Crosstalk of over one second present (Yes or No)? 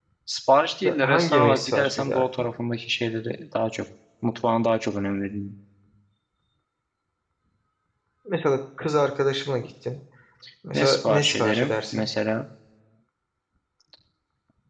Yes